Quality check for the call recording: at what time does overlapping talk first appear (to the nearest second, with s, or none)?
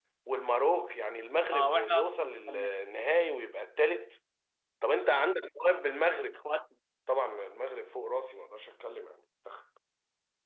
2 s